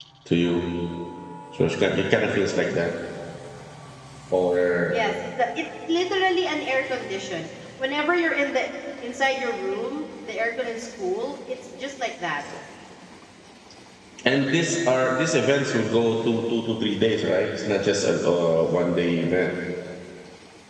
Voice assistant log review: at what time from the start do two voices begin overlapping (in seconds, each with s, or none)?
none